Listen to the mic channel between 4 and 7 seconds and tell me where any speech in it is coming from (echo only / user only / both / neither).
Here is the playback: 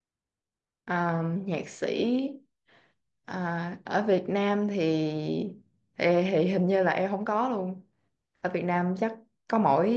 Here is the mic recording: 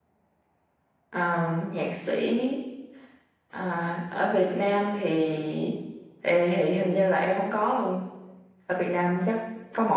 echo only